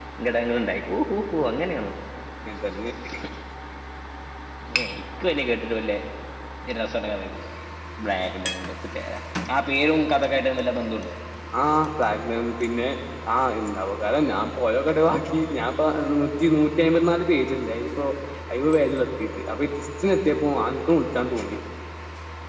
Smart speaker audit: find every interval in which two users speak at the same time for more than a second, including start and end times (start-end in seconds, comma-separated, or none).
none